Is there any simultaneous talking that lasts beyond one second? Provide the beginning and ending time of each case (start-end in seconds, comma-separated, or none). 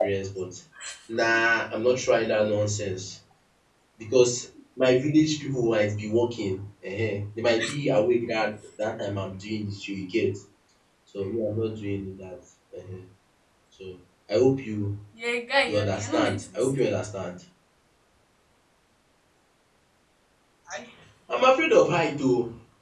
15.7-16.9